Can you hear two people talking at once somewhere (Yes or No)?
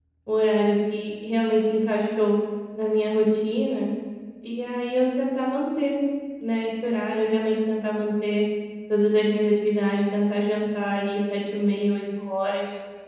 No